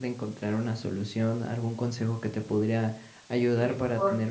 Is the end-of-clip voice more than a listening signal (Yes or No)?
No